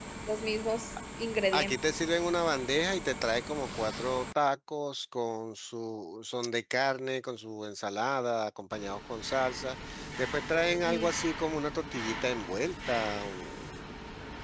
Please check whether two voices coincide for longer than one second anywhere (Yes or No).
No